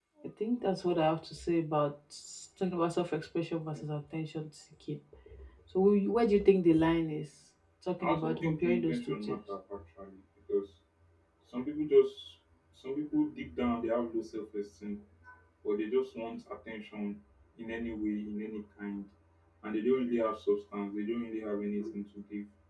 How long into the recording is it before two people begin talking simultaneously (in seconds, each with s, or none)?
8.0 s